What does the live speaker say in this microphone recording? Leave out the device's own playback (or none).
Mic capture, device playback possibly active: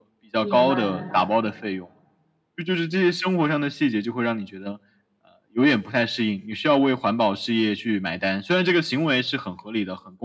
明白，明白。